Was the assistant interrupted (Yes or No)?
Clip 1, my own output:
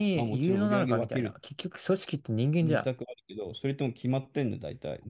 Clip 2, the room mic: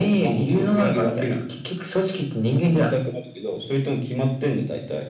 No